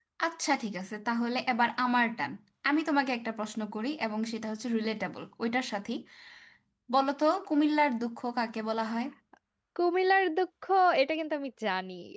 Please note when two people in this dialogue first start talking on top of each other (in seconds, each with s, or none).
none